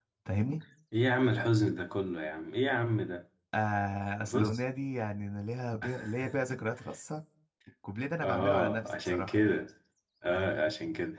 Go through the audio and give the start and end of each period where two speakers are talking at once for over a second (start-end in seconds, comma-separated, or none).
8.2-9.4